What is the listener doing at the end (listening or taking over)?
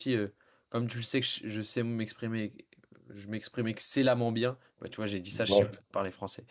listening